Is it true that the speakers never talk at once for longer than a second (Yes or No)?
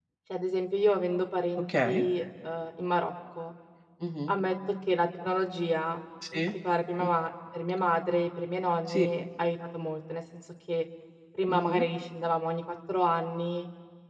Yes